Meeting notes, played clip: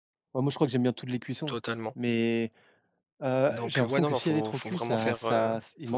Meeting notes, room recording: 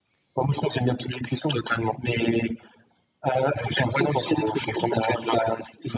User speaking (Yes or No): No